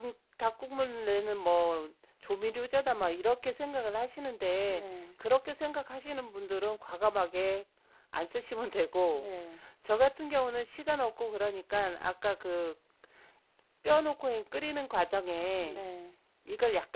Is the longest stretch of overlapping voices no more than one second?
Yes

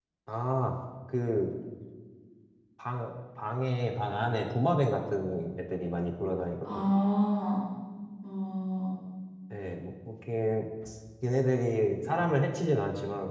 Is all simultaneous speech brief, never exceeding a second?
Yes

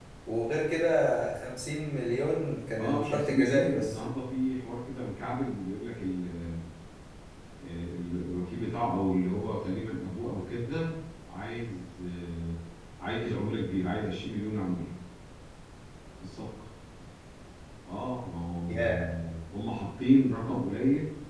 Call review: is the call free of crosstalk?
No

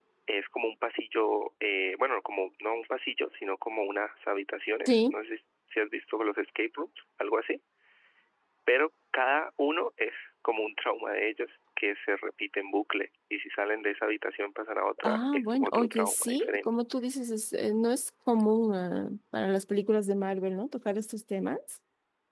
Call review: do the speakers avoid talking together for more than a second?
No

